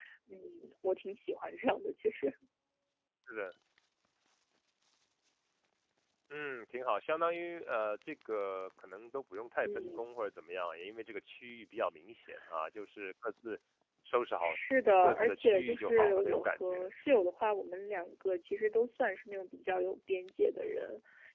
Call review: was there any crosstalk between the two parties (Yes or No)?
Yes